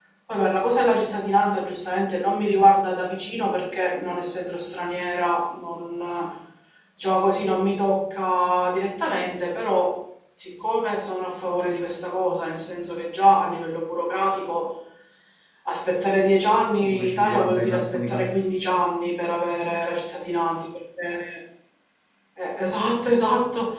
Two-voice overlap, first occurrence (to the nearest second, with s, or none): 17 s